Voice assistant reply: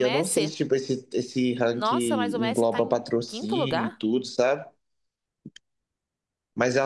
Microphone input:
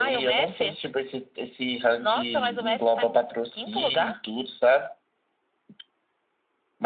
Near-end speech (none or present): none